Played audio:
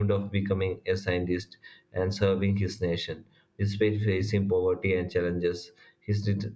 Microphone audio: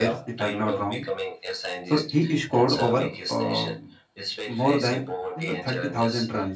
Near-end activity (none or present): present